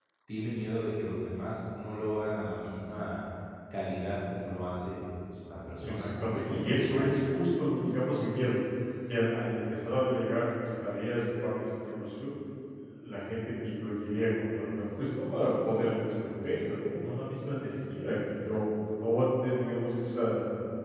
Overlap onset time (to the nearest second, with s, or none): 6 s